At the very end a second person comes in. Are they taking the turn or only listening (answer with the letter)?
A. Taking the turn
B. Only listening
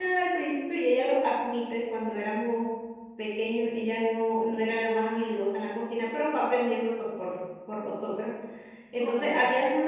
B